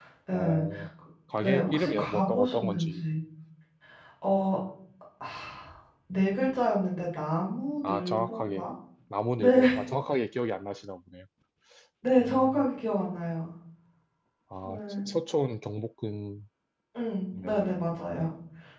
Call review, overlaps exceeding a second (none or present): present